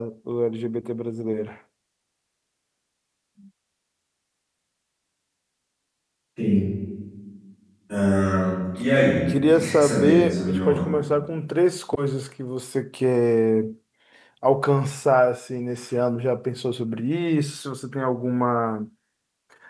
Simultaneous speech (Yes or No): Yes